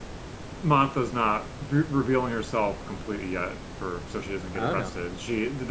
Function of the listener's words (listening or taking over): listening